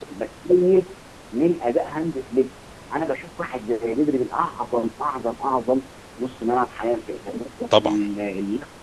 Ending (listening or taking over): listening